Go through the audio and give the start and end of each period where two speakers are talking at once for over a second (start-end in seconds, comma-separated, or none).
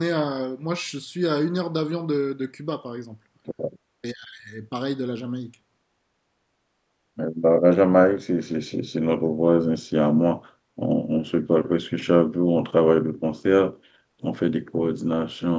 none